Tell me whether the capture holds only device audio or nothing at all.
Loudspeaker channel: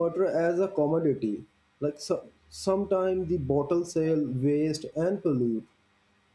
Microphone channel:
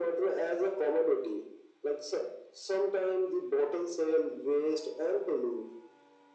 Yes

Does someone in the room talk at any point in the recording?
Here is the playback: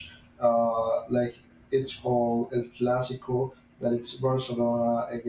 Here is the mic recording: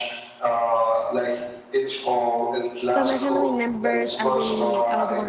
Yes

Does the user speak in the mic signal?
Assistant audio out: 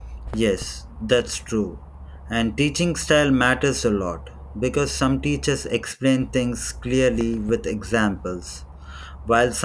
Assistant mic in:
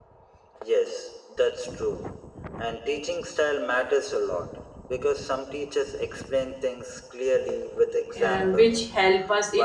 Yes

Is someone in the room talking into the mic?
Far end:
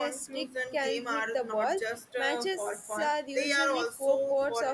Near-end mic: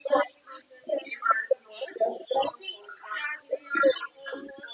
No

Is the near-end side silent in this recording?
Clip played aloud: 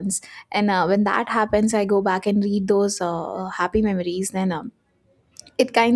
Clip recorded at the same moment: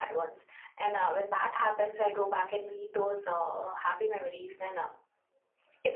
Yes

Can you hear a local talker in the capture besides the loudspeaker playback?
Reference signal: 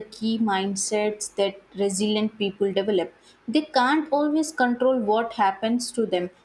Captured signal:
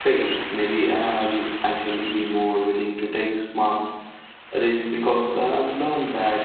Yes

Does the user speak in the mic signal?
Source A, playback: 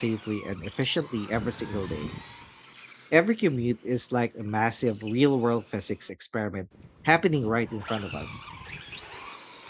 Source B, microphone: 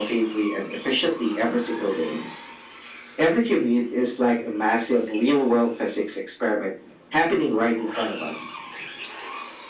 No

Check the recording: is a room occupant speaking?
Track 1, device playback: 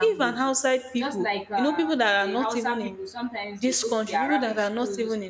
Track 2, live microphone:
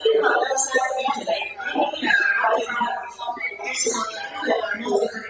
No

